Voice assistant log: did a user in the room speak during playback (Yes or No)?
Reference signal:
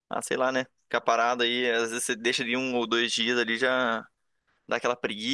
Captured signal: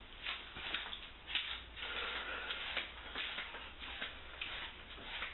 No